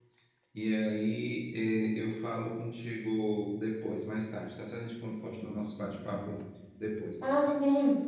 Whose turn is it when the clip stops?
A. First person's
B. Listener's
B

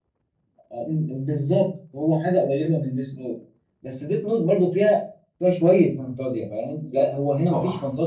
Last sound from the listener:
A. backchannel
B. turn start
A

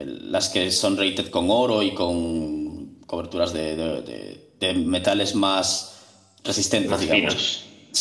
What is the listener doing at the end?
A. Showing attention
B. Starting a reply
A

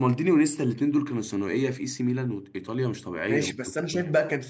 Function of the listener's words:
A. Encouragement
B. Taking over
B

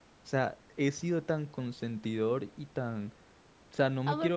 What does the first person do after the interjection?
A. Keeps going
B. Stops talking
B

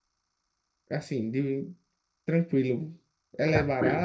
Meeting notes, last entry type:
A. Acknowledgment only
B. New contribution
B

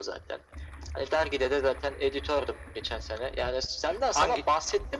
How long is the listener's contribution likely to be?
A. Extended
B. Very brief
B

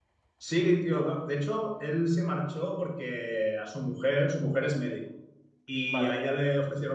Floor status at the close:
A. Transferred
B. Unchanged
B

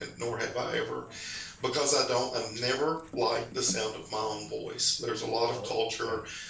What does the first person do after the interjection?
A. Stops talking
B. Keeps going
B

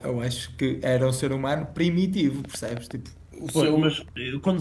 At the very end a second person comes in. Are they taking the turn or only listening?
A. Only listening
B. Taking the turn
B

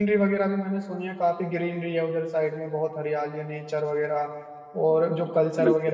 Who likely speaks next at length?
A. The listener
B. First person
B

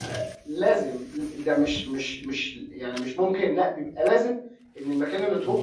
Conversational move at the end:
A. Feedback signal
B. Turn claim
A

